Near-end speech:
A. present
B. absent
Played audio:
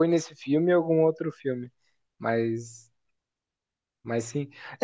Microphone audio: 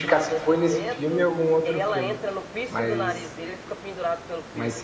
A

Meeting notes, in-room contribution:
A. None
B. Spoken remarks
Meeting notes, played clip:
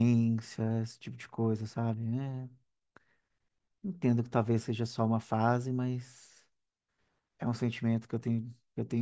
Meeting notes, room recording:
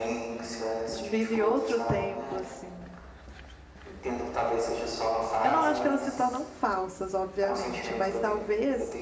B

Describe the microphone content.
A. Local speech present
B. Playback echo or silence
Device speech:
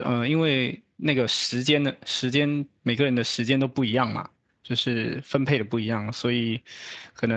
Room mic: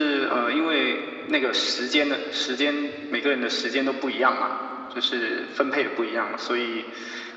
B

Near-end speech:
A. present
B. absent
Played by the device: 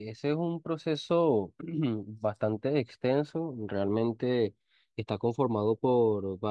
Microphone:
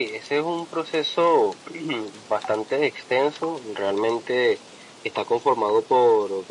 B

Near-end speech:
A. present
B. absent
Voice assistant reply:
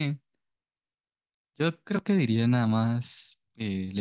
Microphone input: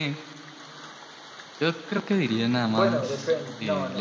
A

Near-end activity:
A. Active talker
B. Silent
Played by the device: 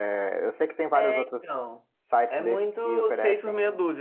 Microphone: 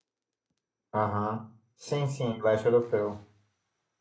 A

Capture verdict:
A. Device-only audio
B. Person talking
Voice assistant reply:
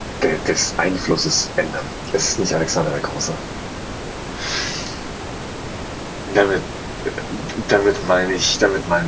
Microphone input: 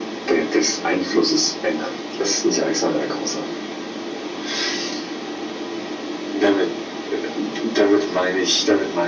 A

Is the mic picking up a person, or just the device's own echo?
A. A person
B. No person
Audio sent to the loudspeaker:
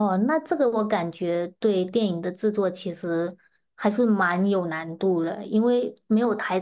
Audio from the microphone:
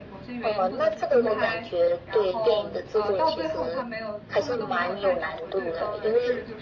A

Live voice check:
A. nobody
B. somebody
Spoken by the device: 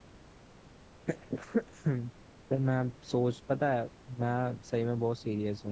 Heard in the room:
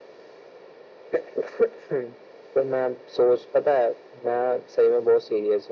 A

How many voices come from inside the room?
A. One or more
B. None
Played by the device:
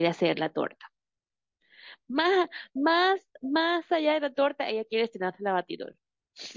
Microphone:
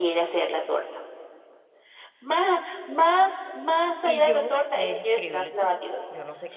A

